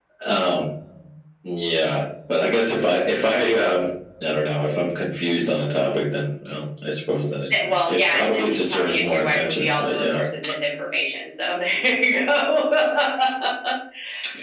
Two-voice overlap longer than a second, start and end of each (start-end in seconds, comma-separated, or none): 7.5-10.2